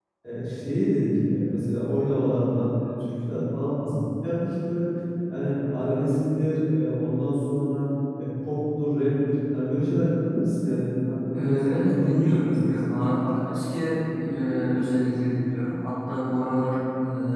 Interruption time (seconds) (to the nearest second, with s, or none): 11 s